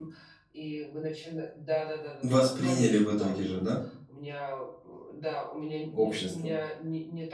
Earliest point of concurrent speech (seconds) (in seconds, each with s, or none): 2.2 s